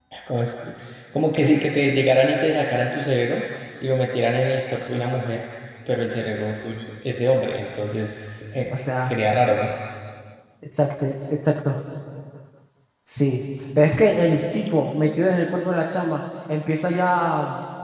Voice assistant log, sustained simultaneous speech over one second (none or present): none